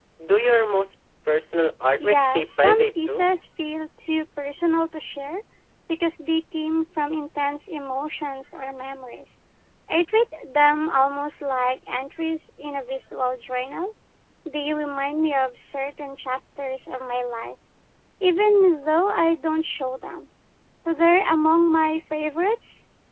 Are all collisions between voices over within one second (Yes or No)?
No